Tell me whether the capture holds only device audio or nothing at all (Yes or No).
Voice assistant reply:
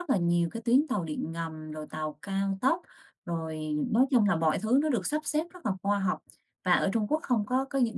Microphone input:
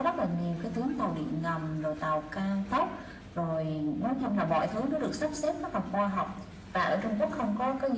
Yes